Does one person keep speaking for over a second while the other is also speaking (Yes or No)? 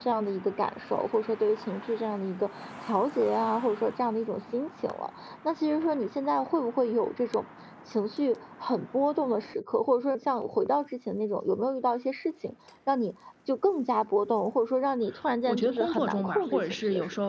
Yes